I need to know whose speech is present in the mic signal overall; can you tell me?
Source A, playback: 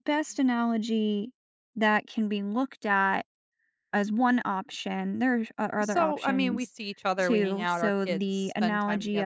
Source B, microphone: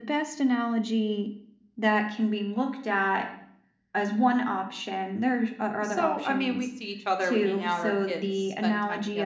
echo only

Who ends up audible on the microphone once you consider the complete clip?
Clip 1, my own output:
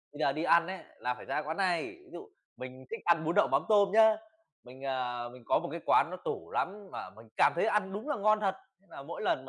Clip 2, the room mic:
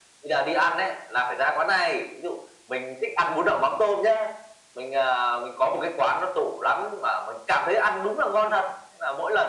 echo only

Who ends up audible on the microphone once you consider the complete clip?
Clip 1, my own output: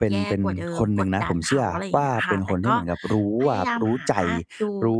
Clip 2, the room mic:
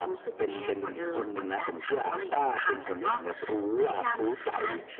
echo only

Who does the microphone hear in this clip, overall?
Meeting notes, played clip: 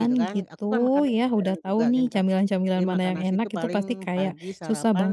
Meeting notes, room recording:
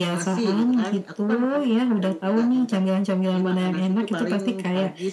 echo only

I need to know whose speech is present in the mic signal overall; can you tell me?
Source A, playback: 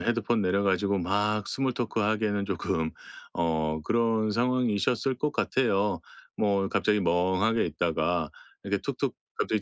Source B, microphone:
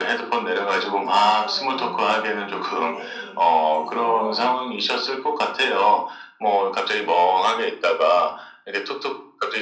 both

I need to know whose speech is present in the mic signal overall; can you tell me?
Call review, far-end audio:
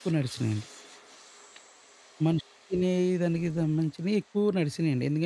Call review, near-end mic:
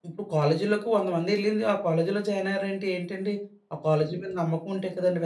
user only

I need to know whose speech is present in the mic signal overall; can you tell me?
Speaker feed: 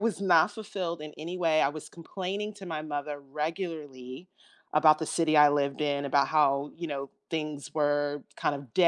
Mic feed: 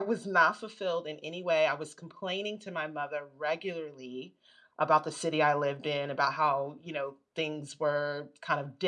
echo only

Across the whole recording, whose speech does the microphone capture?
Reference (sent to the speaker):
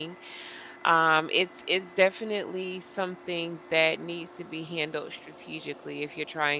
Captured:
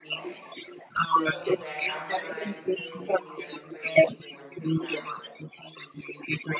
both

